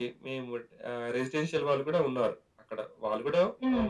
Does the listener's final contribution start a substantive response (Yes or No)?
No